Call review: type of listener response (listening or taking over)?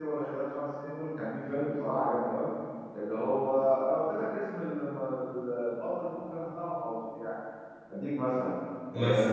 listening